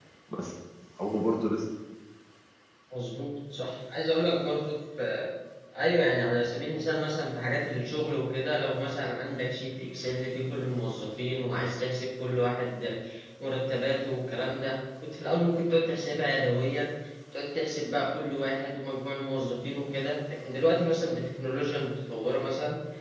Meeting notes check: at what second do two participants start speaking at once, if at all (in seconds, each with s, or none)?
none